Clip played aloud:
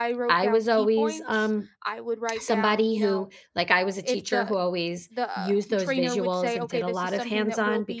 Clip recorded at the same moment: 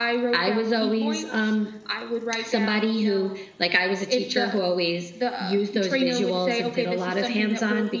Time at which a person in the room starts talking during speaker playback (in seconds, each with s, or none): none